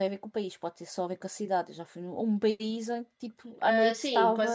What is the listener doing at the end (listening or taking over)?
taking over